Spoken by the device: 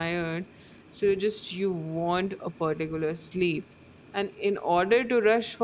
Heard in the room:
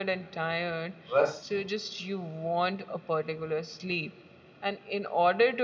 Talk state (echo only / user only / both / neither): both